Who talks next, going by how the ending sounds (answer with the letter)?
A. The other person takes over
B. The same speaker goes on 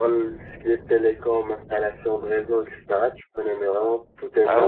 A